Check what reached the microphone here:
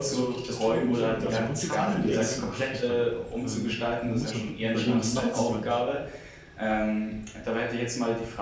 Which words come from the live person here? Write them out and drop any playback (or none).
Also grundsätzlich klingt der Gedanke wirklich verlockend. Ähm, m man muss halt wirklich überlegen: „Wie macht man's?“ Weil